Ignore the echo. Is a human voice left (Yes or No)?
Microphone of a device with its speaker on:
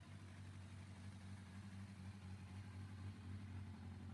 No